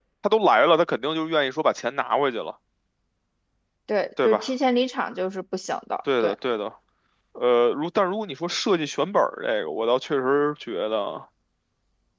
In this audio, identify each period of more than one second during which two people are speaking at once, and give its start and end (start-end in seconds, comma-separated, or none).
none